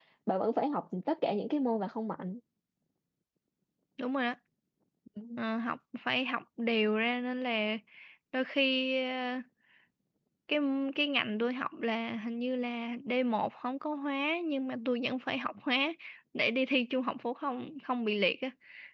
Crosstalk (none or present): none